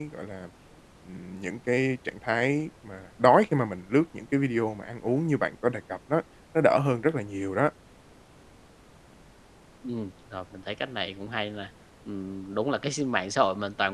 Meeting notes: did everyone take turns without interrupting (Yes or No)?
Yes